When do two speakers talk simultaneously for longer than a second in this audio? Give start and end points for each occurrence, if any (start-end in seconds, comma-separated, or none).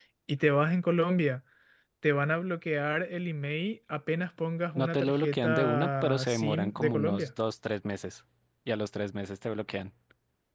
4.8-7.3